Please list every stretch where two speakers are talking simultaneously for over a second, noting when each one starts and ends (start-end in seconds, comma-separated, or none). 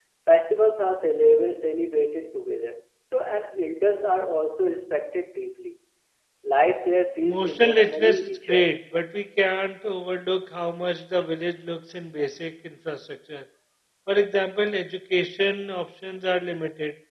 7.2-8.7